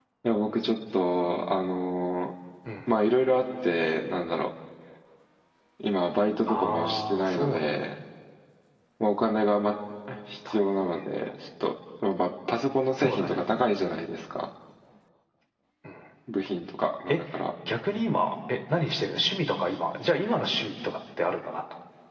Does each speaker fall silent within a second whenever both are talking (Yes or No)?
No